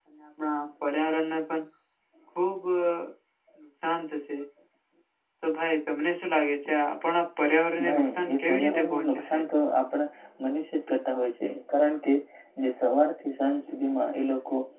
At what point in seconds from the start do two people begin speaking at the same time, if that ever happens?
7.8 s

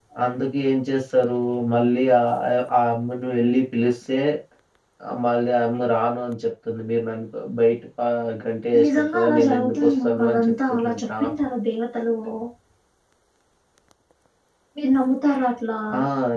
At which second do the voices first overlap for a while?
8.7 s

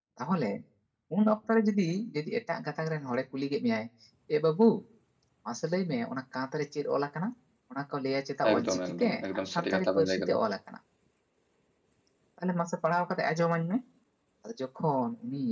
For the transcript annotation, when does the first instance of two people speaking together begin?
8.5 s

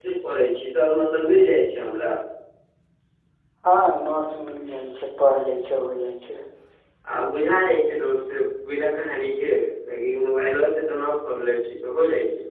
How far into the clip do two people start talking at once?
none

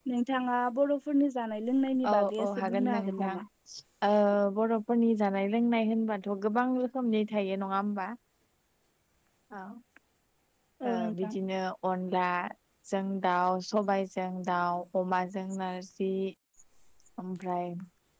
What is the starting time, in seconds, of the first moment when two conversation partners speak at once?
2.1 s

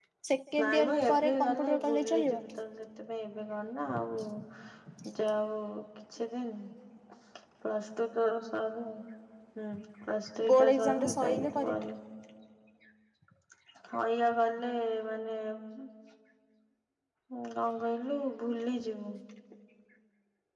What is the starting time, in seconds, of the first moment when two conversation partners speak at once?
0.6 s

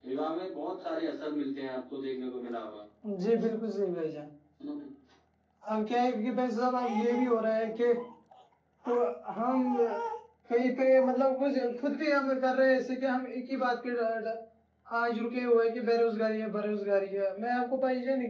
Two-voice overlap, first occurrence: none

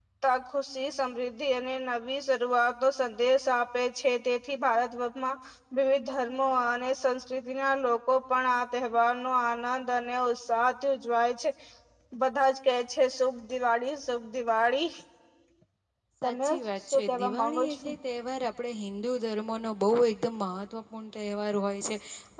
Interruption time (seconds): 16.2 s

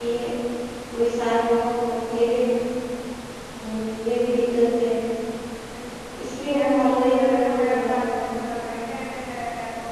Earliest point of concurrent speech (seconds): 6.5 s

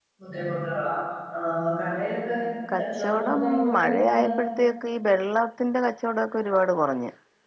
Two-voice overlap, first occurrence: 2.8 s

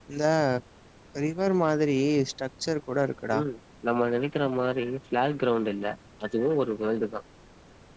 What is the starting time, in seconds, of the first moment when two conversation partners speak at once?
none

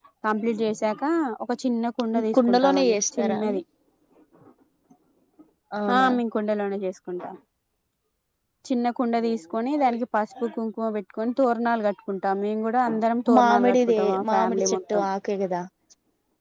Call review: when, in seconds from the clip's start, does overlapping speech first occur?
2.3 s

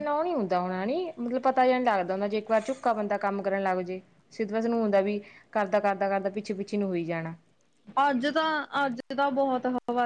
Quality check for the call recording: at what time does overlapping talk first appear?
none

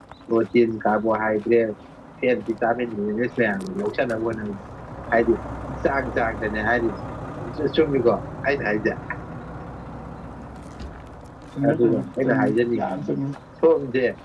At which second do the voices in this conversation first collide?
11.7 s

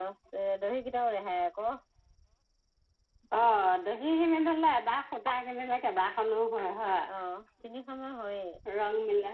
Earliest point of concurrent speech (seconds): none

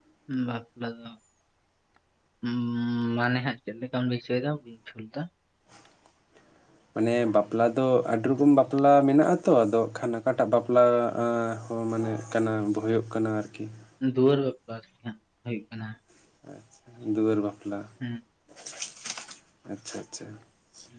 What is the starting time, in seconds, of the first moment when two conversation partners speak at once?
none

